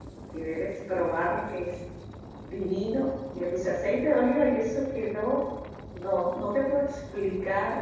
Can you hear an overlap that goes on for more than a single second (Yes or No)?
No